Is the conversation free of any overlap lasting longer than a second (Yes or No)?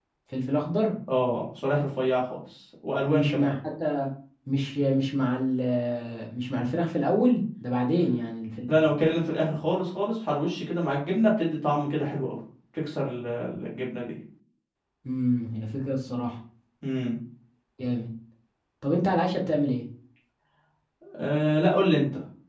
Yes